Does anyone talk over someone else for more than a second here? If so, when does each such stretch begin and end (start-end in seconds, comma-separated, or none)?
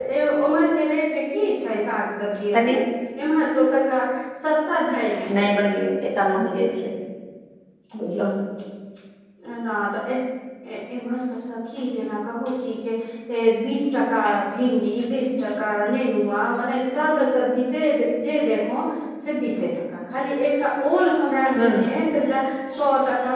none